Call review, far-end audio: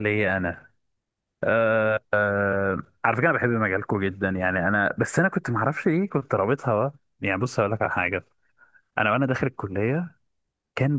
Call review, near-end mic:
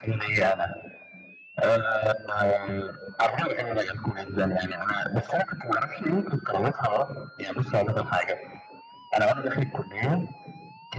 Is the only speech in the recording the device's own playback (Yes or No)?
Yes